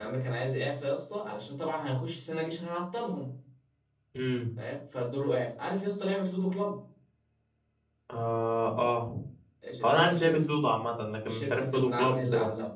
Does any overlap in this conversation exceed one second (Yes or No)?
Yes